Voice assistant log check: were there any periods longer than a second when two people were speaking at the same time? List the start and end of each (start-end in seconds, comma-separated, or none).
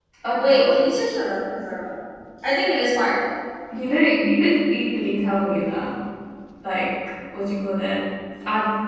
none